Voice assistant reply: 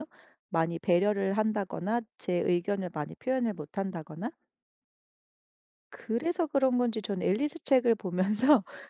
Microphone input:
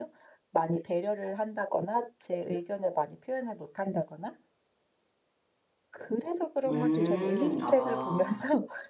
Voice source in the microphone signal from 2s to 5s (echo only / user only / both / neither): echo only